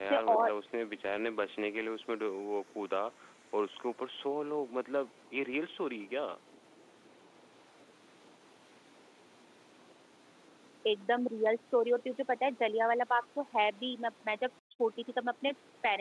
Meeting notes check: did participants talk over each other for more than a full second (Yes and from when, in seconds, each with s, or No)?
No